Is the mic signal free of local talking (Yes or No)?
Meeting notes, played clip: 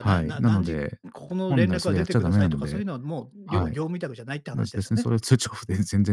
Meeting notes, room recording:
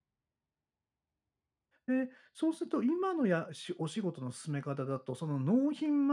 No